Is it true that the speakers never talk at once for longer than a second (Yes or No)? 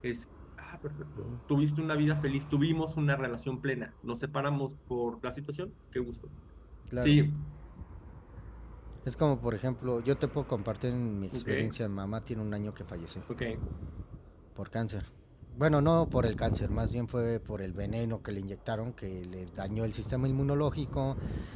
Yes